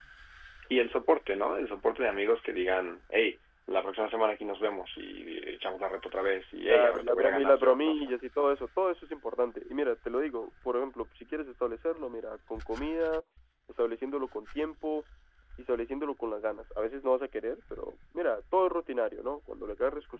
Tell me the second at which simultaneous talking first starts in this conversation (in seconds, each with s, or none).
6.7 s